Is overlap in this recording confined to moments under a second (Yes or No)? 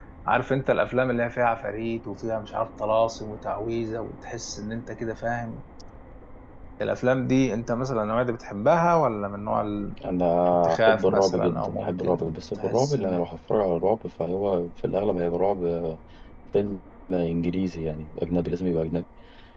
No